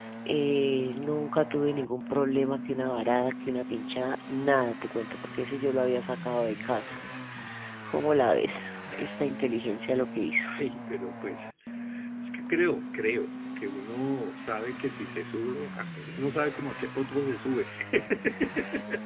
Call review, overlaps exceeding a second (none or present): none